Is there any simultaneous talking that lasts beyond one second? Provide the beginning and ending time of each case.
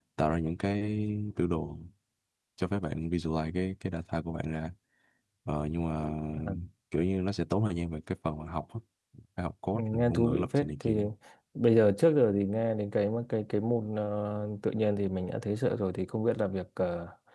9.7-10.9

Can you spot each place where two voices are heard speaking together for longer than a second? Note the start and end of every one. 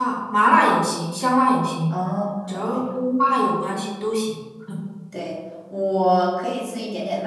none

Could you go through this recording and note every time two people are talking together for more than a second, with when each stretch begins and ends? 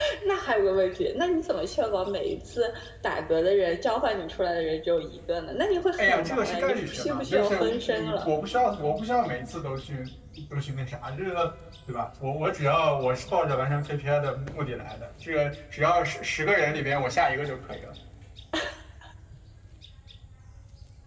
6.0-8.3

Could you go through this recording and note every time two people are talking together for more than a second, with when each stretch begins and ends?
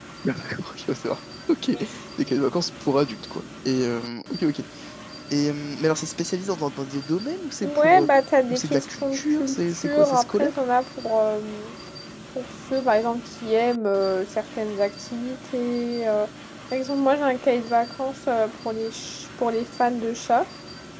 8.5-10.6

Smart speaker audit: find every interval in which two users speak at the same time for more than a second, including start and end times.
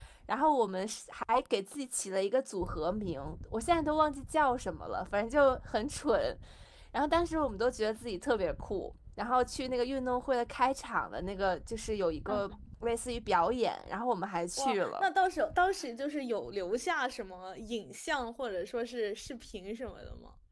none

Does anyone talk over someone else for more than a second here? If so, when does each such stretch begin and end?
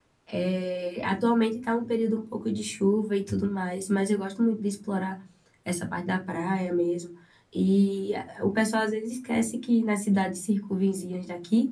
none

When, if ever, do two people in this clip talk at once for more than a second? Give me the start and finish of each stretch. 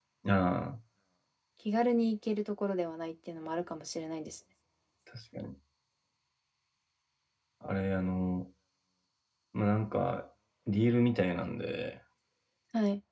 none

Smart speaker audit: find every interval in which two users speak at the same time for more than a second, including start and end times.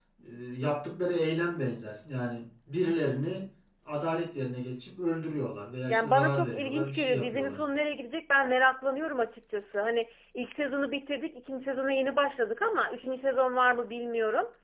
5.9-7.6

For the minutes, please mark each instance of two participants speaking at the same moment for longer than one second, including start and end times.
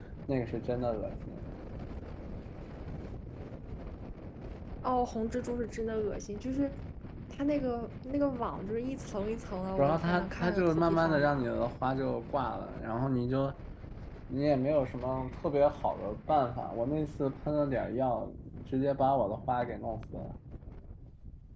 9.8-11.5

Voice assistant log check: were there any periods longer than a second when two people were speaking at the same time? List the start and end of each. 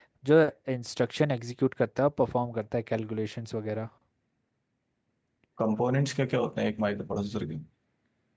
none

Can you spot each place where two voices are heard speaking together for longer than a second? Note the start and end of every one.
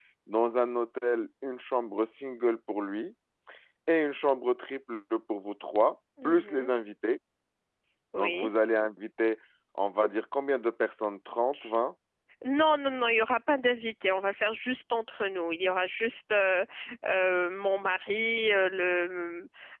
none

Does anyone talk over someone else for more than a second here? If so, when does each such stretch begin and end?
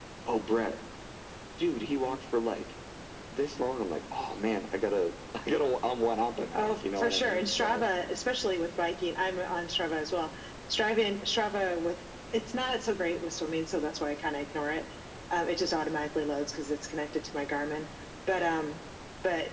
6.5-7.8

